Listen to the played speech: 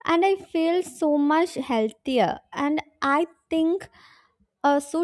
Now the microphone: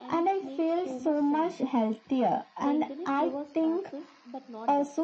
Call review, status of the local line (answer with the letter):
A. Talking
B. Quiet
A